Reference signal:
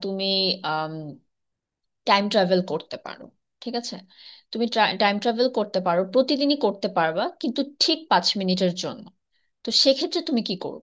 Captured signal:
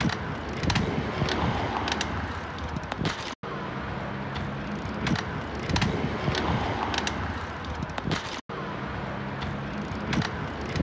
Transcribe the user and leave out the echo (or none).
none